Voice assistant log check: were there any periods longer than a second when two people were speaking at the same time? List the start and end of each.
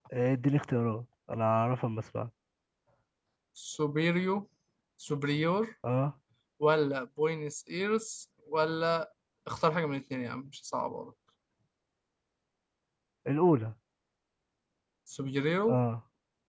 none

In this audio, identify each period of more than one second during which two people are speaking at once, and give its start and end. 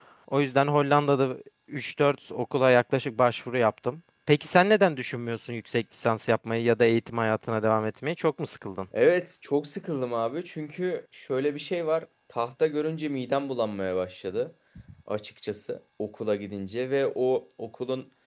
none

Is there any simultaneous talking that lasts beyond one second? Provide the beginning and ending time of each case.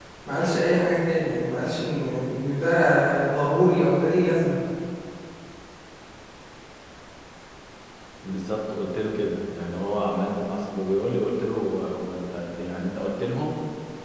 none

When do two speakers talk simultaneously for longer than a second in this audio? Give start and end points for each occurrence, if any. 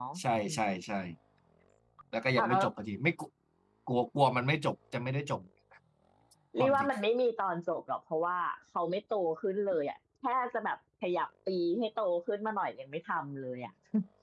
none

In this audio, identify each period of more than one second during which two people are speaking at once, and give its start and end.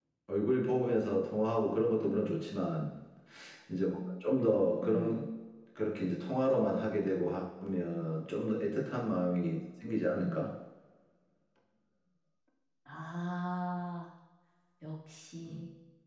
none

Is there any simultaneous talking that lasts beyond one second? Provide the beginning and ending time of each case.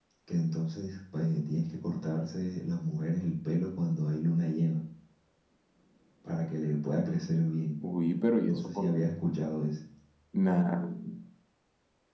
none

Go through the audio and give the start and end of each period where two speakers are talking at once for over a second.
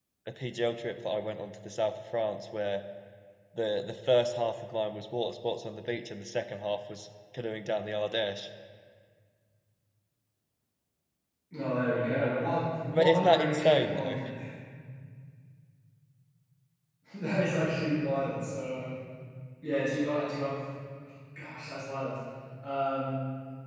12.9-14.2

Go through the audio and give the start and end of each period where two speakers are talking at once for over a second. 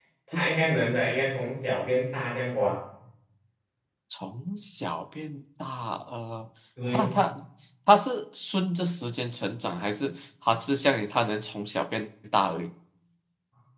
none

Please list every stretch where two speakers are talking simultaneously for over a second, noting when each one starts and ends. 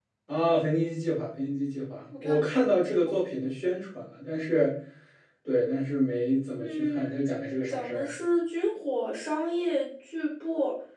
6.6-8.1

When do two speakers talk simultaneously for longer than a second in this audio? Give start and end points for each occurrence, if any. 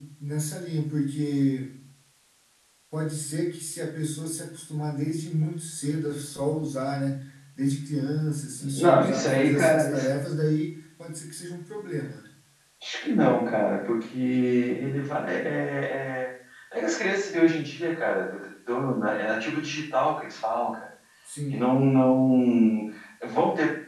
8.7-10.1

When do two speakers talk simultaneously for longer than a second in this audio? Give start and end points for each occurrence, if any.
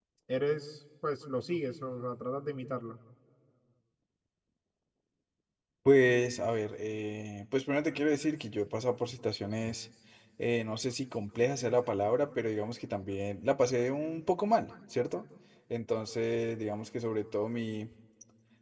none

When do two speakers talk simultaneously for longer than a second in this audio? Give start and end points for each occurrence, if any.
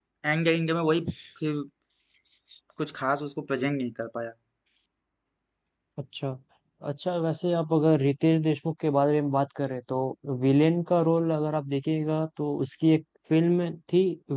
none

